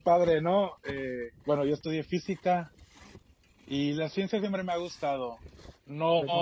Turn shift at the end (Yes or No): No